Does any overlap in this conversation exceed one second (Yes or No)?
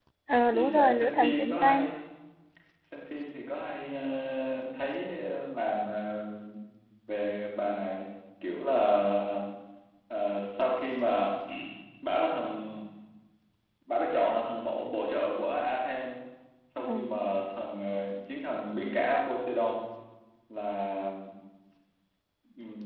Yes